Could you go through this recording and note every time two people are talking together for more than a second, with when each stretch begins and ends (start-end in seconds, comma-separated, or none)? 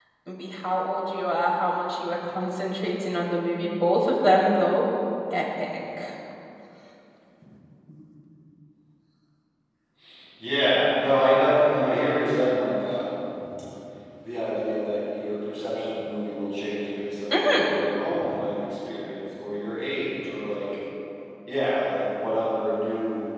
none